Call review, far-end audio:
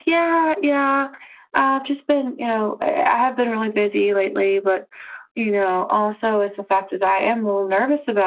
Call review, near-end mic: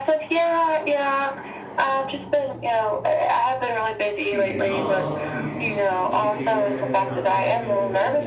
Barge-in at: 4.2 s

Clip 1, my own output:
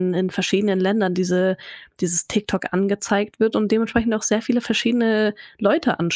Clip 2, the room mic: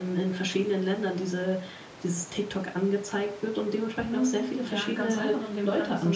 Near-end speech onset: 4.1 s

